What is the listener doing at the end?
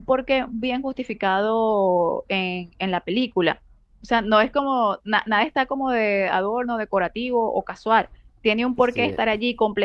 listening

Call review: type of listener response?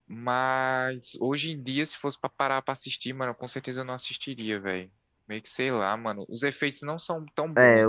taking over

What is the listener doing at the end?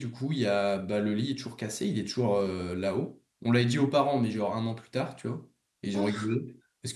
listening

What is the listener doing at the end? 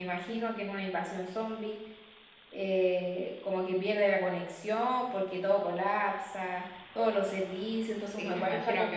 taking over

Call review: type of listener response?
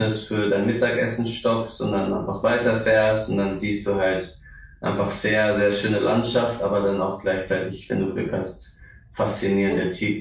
listening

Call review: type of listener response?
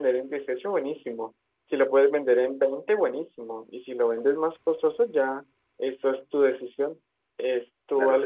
taking over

